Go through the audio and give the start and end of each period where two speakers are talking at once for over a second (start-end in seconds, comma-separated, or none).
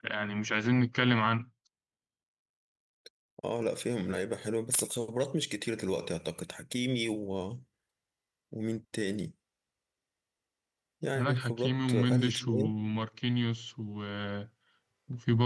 11.2-12.8